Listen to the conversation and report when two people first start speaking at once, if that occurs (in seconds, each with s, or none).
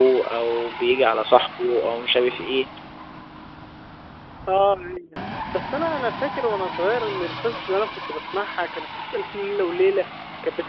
none